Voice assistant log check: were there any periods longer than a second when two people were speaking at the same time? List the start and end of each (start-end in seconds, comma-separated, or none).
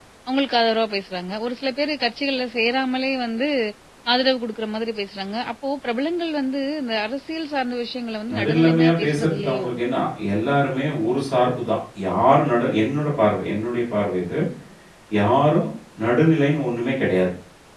8.3-9.7